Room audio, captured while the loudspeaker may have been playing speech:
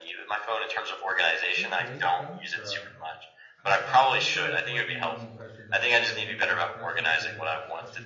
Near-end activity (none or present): present